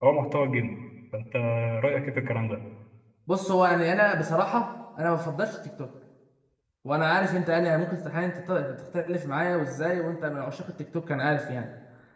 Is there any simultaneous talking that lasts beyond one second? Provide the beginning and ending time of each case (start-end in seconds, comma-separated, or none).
none